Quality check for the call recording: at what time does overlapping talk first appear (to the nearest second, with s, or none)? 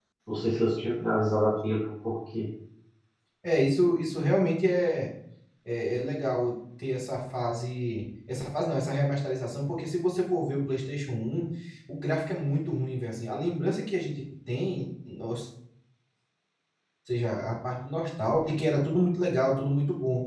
none